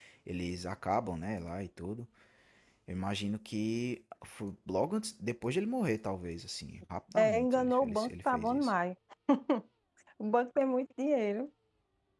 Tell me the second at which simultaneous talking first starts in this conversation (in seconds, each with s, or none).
7.2 s